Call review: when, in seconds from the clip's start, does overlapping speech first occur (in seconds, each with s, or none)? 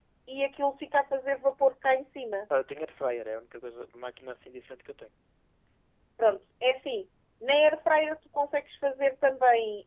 none